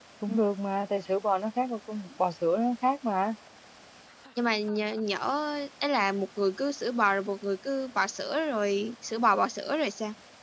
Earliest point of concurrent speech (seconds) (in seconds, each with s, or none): none